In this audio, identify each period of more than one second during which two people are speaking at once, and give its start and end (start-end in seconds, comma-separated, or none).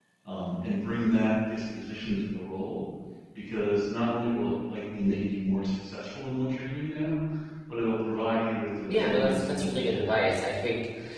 8.9-10.2